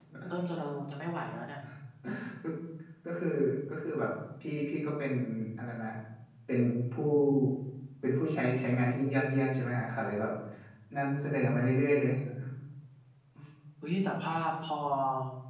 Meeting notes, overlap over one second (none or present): none